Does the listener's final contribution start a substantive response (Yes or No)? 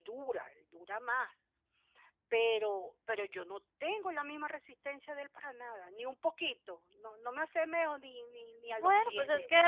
Yes